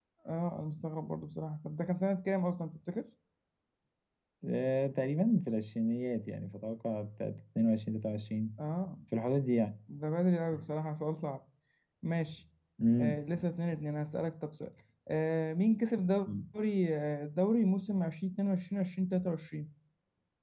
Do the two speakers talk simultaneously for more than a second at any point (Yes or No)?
No